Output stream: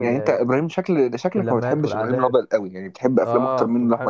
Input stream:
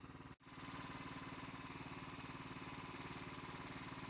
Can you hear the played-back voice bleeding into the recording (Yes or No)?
No